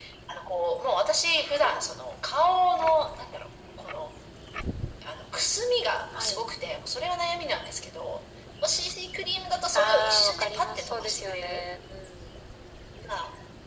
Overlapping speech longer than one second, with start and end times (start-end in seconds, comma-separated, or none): 9.7-11.7